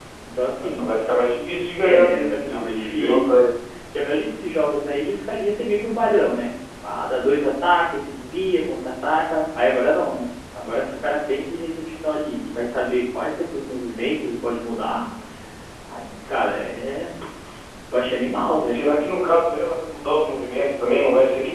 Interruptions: present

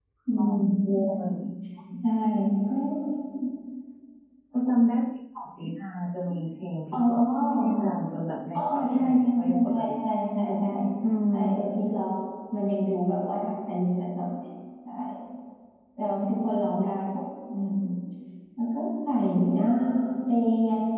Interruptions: present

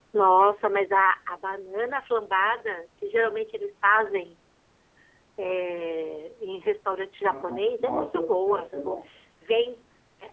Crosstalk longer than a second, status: present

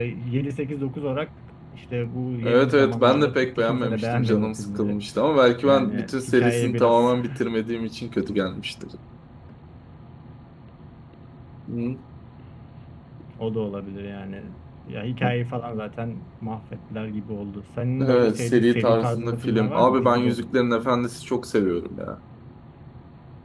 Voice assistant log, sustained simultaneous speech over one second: present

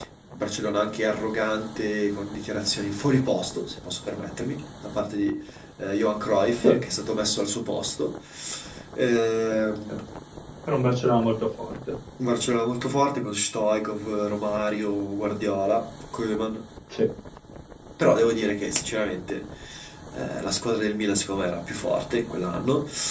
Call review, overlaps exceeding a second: none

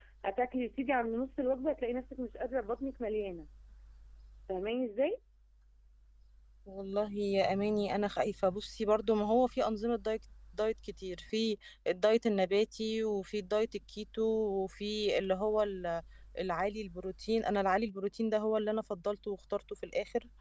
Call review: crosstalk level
none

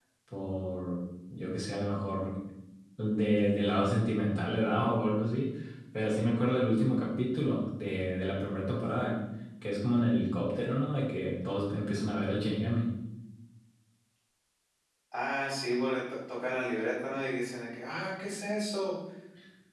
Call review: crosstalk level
none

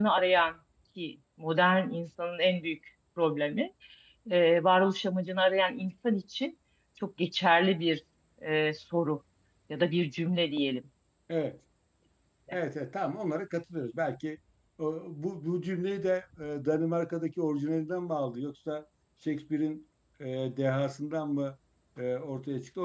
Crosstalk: none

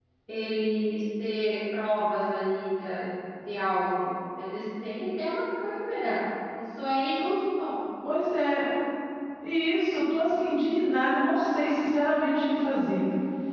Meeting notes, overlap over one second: none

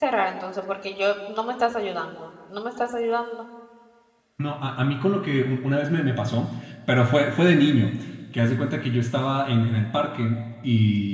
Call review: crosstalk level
none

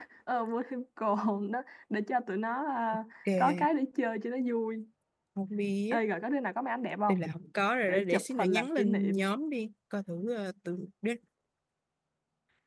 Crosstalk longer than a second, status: present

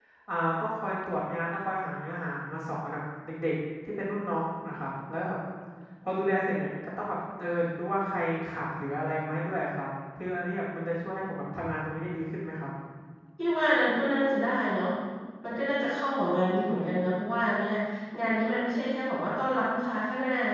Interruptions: none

